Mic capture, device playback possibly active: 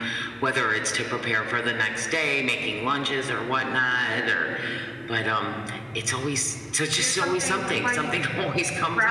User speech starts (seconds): 7.0 s

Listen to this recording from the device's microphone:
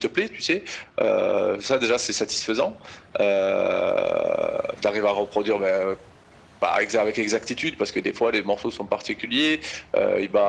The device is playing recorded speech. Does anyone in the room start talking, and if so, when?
none

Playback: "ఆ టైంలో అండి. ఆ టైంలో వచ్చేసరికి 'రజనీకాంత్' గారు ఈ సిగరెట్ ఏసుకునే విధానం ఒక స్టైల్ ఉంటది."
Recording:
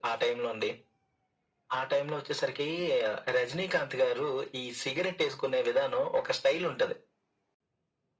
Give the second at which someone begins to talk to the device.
none

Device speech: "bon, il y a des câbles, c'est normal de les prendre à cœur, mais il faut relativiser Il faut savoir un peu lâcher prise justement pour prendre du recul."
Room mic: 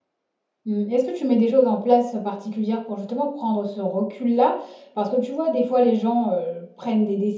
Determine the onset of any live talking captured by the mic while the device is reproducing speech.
0.7 s

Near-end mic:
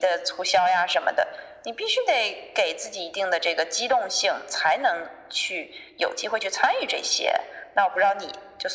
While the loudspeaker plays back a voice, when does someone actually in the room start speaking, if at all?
none

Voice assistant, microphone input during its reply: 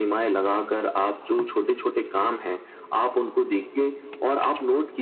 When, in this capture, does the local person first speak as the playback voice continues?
none

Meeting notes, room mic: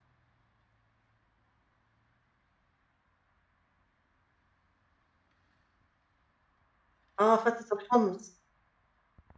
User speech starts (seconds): 7.2 s

